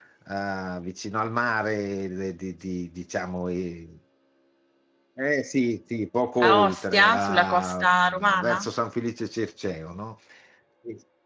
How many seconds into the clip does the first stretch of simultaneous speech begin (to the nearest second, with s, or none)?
6 s